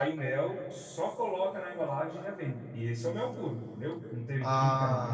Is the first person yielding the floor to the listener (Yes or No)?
No